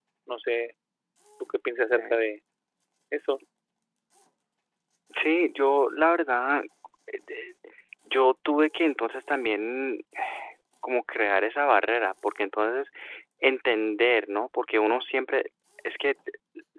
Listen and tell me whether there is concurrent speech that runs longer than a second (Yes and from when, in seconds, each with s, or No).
No